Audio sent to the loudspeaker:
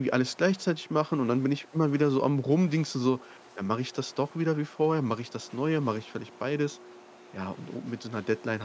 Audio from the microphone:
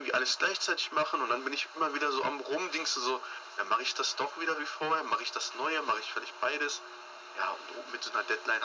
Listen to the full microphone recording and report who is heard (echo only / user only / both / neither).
echo only